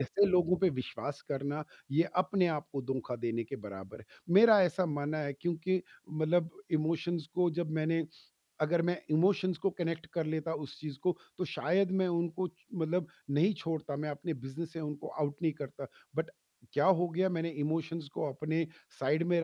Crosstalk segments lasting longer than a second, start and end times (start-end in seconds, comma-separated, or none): none